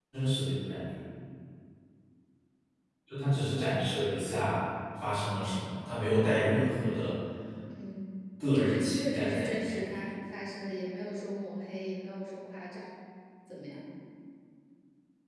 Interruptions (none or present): present